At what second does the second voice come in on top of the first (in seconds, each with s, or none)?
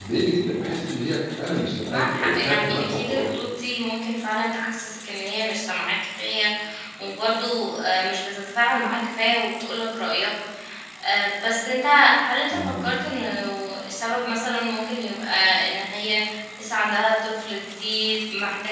1.9 s